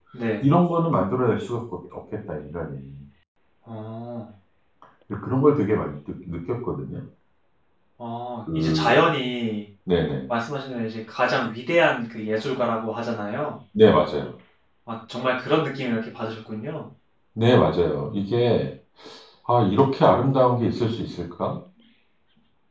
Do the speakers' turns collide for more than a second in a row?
No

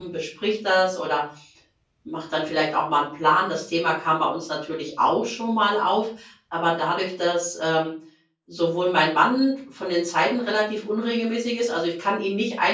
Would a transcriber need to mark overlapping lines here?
No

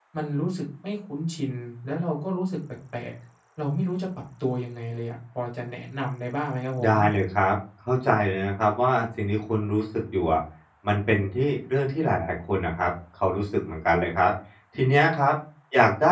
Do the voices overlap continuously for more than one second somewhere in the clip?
No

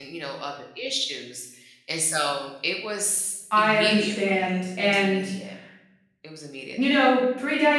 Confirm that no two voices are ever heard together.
No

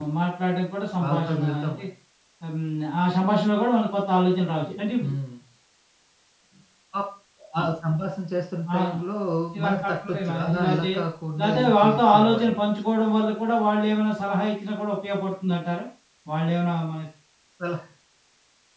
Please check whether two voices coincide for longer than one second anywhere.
Yes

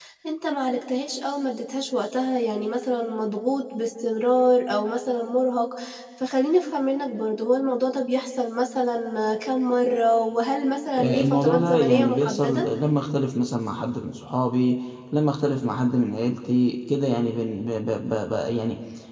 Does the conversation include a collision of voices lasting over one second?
Yes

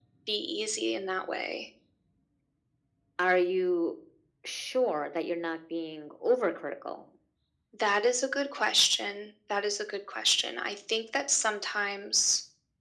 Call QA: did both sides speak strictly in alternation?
Yes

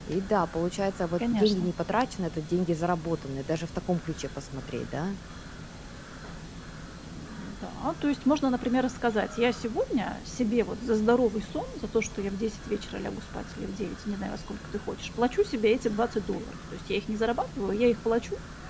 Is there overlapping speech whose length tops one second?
No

